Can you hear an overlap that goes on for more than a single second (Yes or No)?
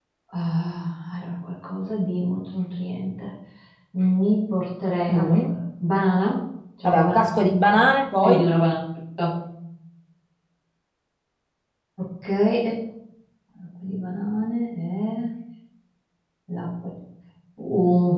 No